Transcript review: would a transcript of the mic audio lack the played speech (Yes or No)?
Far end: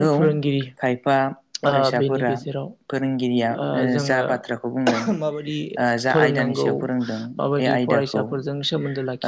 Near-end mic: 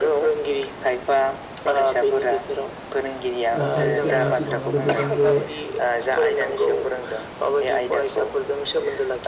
No